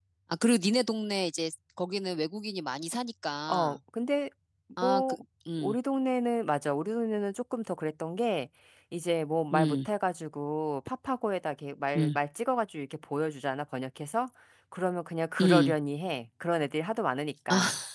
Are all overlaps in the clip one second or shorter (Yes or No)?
Yes